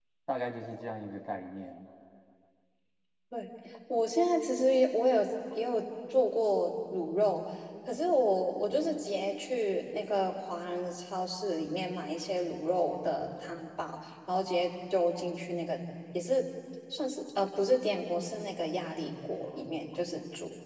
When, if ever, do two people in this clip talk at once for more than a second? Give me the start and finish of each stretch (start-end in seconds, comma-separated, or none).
none